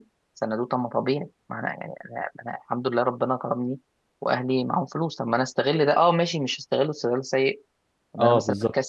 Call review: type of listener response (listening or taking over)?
listening